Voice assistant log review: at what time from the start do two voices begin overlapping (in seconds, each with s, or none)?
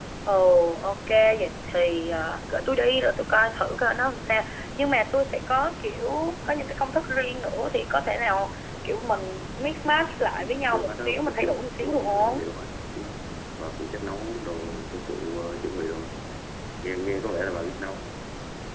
10.4 s